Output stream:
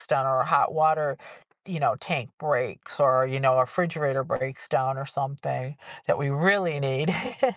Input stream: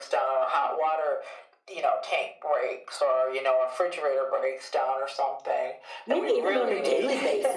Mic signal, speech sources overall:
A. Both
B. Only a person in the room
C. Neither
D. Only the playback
A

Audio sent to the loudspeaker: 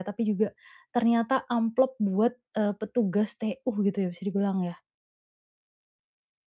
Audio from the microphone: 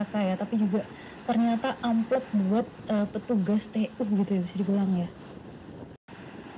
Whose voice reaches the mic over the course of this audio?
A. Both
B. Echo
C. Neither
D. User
B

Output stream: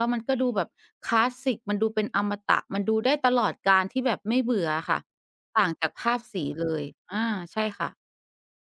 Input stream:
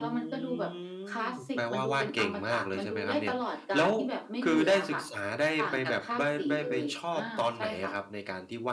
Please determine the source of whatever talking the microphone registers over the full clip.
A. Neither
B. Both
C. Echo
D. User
B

